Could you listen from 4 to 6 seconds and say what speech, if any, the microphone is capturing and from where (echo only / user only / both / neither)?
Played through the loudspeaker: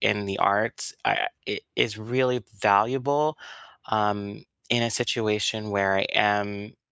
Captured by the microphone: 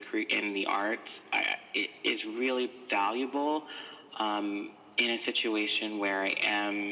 echo only